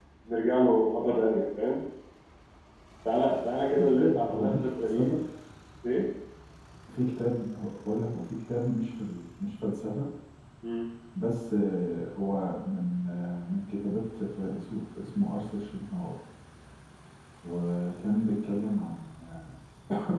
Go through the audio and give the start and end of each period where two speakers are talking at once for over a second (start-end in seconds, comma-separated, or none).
3.8-5.2